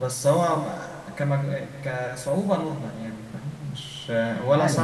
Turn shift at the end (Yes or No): Yes